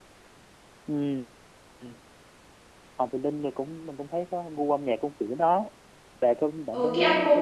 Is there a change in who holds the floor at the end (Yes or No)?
Yes